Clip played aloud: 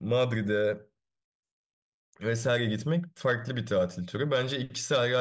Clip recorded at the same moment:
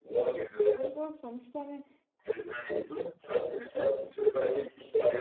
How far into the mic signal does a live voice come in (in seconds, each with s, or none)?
0.6 s